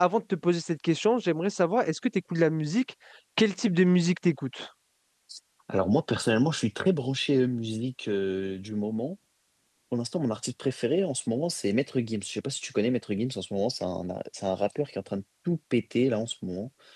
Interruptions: none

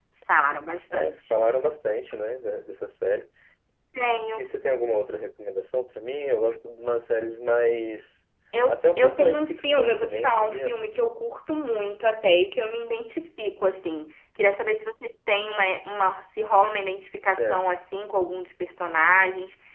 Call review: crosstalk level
present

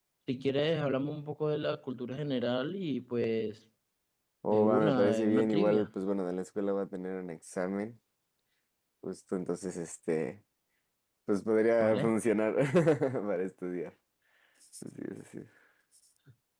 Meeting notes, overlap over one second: present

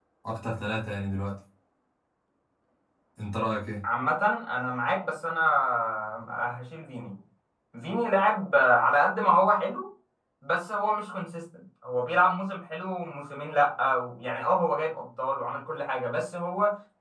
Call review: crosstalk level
none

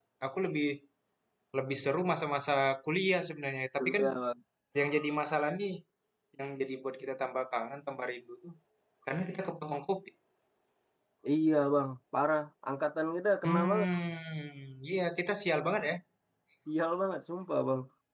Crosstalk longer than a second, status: none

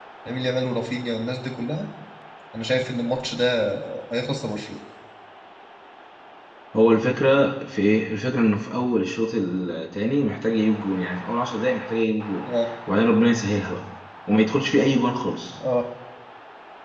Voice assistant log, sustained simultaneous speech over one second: none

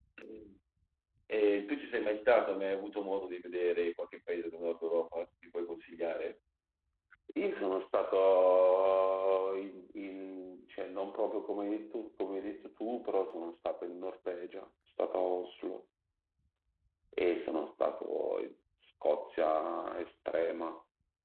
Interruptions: none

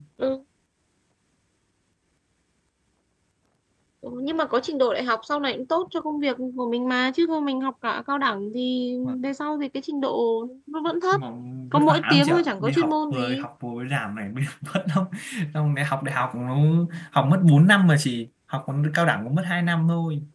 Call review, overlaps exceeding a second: present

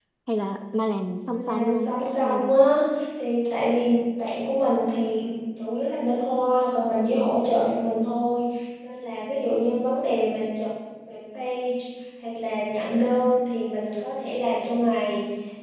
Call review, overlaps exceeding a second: present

